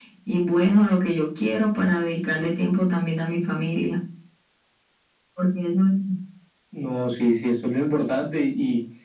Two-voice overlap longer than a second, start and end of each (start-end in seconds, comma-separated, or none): none